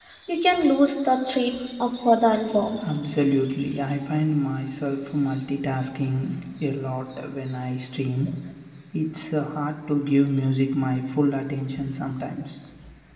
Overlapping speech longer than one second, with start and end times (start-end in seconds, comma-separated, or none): none